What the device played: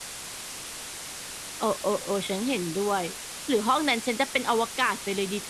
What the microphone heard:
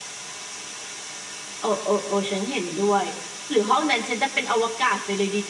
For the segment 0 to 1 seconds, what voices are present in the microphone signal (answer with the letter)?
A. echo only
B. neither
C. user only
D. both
B